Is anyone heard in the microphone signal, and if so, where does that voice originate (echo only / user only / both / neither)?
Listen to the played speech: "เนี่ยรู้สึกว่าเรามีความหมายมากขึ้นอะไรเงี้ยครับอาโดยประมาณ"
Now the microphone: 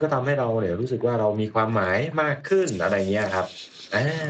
echo only